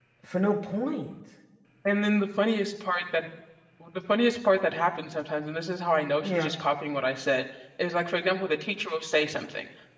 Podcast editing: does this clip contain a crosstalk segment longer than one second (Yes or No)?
No